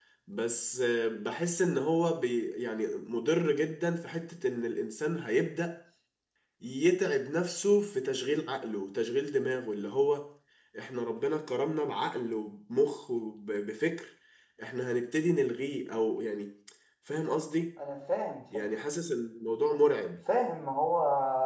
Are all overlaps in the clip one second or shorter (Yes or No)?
Yes